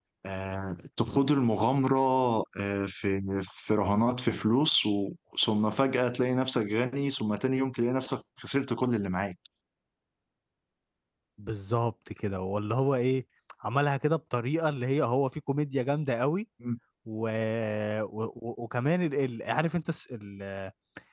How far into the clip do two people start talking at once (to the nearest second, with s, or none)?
none